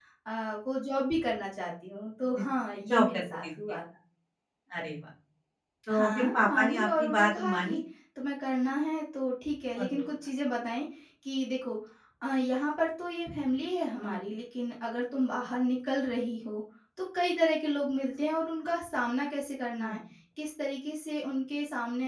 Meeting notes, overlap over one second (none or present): present